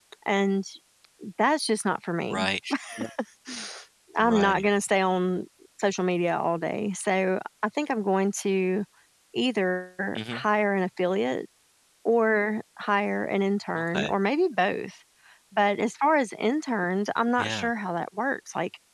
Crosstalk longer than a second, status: none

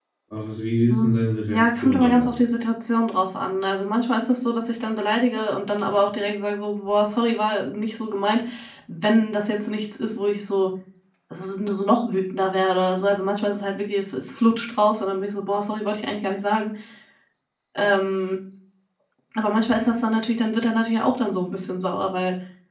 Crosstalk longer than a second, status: present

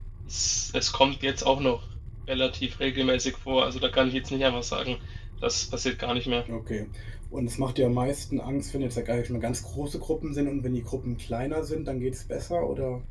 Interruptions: none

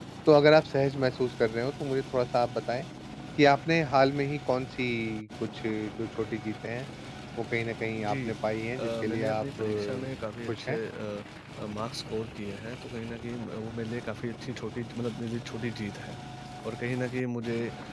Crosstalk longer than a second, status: present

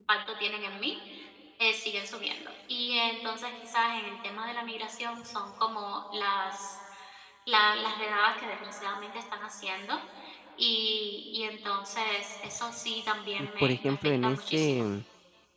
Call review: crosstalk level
present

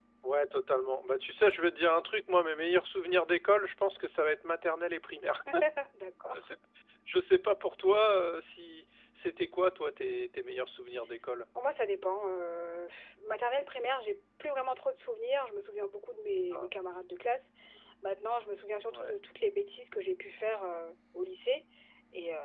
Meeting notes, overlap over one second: none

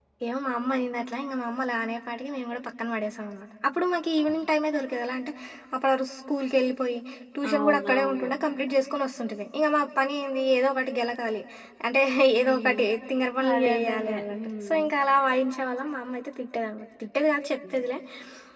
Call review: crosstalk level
present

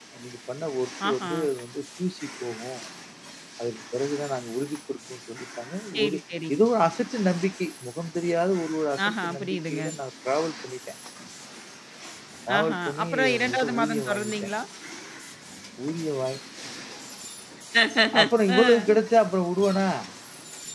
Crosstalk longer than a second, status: present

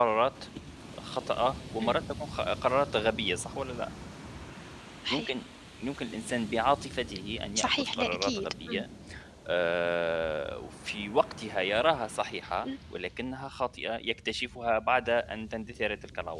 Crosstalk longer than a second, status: present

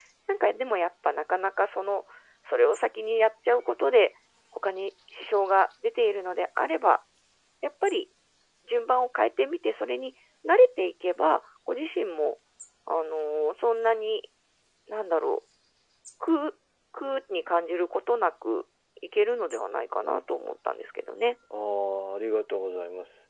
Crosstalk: none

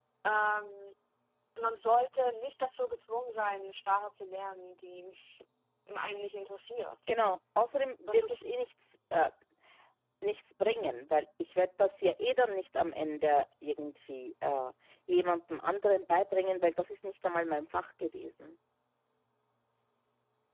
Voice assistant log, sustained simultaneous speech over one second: none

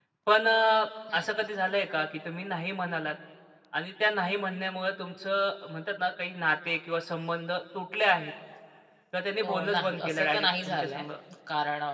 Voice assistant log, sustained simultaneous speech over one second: present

